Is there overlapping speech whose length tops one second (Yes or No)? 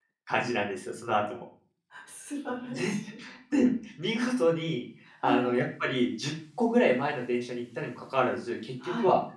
No